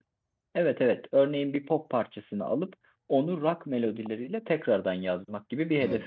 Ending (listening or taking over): taking over